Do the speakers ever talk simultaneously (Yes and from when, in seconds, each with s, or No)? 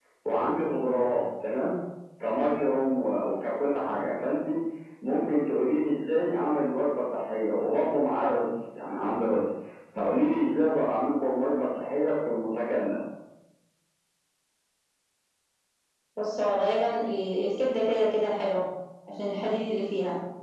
No